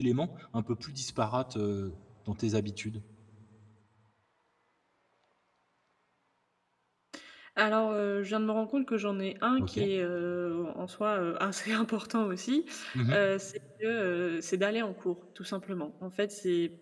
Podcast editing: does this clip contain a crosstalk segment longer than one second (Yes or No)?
No